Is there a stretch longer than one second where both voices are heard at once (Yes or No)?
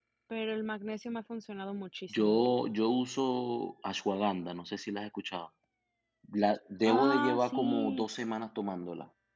Yes